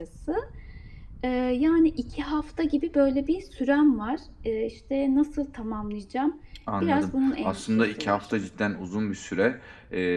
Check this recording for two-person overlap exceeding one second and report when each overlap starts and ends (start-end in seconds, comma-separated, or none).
6.8-8.3